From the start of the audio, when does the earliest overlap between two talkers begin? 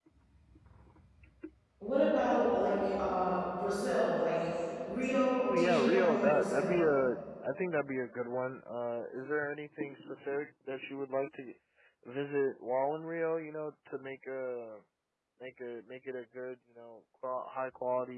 5.4 s

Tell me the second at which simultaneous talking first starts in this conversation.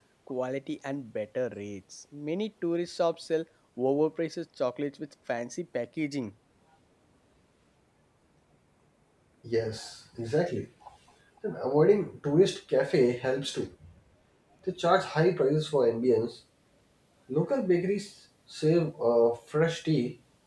none

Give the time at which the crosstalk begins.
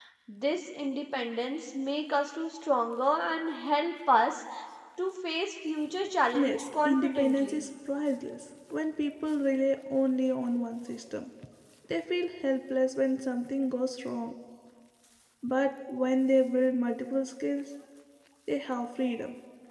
6.3 s

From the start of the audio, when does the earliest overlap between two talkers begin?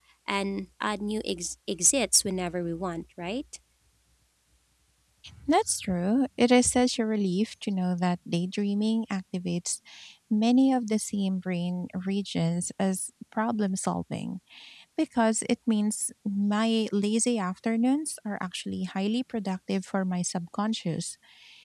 none

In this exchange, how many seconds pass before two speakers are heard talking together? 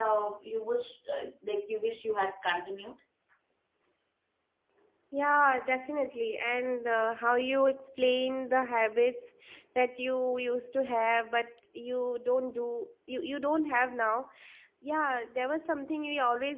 none

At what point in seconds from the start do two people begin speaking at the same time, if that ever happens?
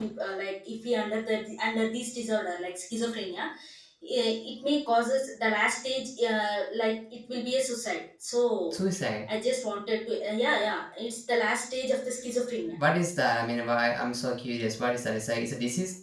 none

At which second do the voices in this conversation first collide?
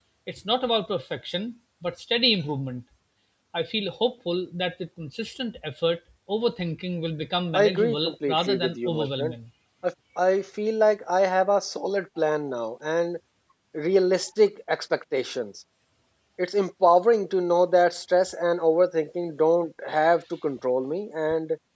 7.5 s

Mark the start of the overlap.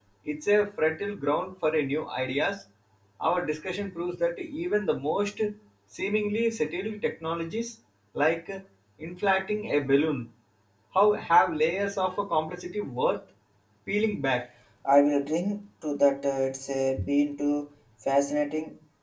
none

